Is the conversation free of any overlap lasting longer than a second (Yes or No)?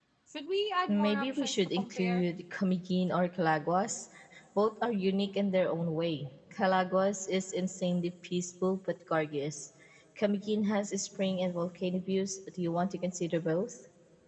No